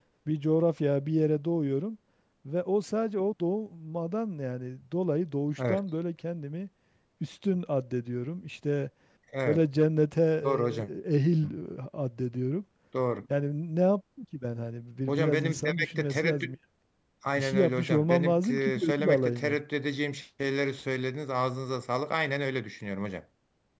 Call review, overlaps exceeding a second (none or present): present